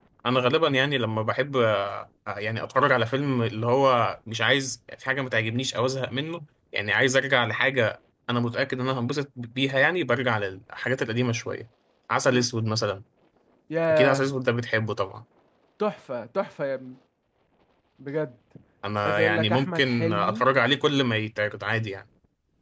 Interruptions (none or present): present